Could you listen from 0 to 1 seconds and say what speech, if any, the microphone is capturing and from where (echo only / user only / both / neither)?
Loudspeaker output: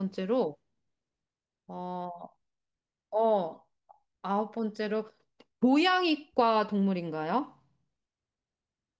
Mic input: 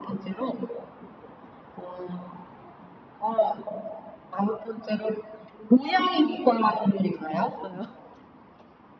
echo only